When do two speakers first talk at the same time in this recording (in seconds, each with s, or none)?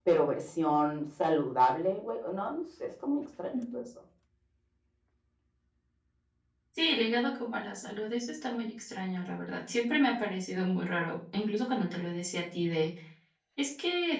none